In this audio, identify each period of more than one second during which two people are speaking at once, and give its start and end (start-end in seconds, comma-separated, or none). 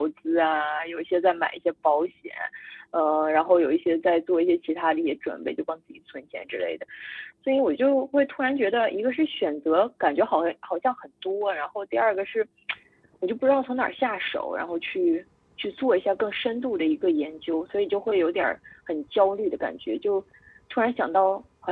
none